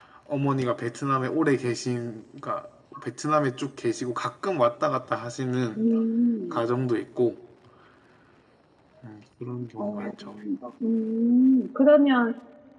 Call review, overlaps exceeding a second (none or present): none